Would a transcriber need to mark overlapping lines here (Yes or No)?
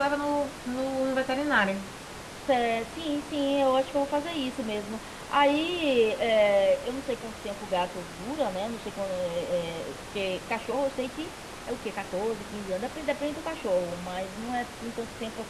No